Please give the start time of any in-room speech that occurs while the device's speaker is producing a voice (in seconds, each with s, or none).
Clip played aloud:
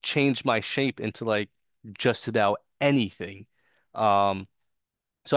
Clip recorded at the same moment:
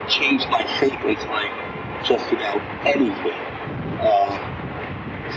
none